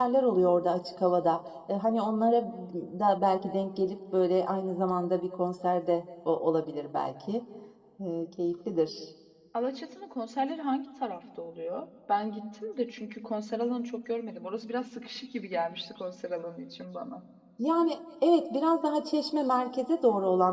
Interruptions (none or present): none